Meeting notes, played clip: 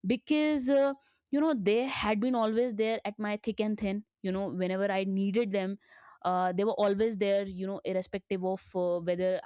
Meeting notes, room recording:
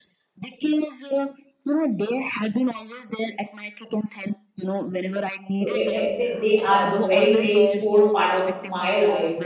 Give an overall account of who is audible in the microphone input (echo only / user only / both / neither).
both